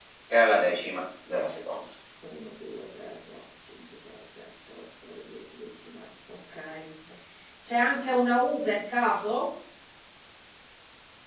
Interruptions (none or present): none